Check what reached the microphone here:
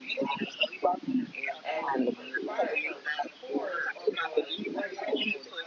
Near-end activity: present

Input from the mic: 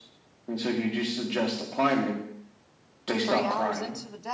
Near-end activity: present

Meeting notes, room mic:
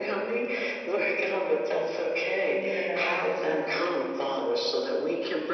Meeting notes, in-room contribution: present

